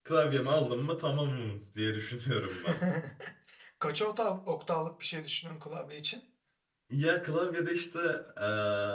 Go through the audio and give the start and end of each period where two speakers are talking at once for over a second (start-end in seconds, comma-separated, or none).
none